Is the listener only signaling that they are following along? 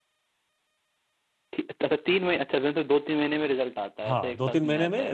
No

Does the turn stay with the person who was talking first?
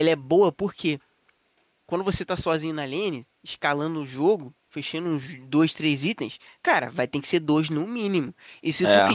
Yes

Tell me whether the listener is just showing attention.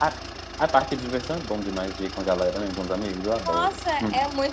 No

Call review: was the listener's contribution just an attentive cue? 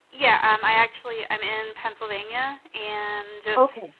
Yes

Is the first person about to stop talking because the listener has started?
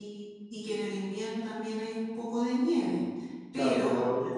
Yes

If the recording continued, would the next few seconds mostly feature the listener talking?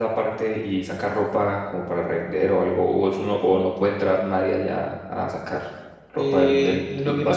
Yes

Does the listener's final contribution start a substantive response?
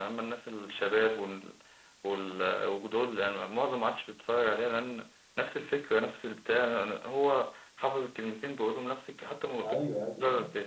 Yes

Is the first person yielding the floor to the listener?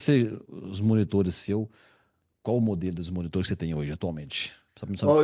Yes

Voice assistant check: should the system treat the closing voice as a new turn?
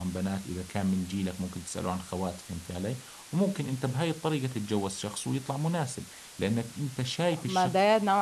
Yes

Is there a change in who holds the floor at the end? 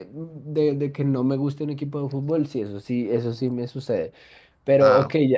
No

